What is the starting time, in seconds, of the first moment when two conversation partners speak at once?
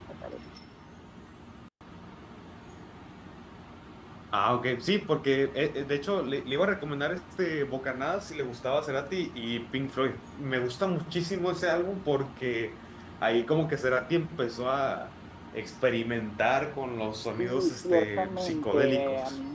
17.4 s

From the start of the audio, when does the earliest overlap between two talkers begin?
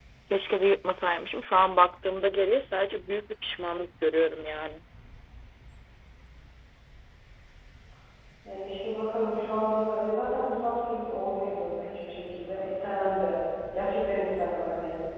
none

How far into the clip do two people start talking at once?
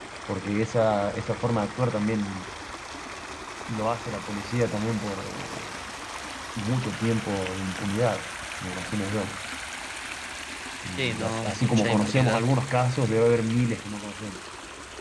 11.0 s

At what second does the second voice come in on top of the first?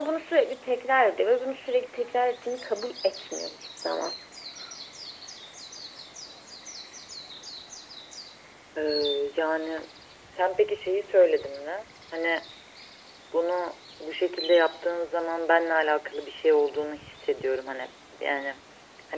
none

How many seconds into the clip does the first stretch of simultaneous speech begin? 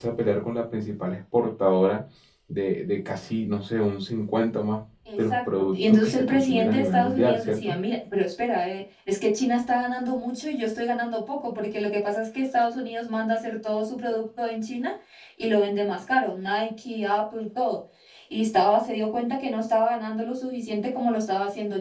5.0 s

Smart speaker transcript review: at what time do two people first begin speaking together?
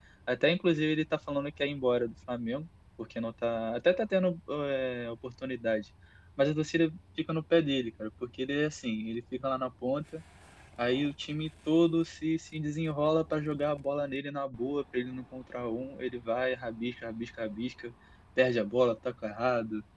none

